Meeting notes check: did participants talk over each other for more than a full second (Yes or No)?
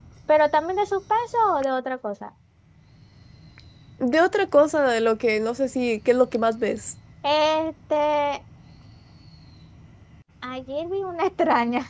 No